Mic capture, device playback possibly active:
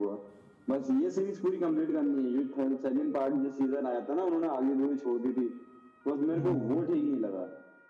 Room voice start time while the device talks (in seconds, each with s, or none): 6.3 s